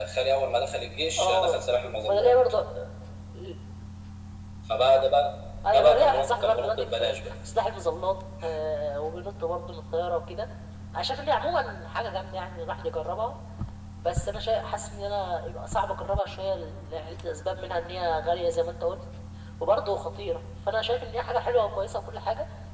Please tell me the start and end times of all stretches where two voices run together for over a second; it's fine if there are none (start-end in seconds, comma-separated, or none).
5.7-7.3